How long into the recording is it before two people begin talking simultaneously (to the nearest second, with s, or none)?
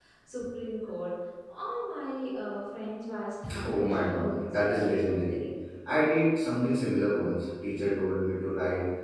3 s